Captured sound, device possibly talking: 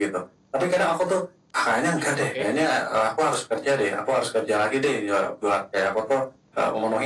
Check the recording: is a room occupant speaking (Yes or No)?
Yes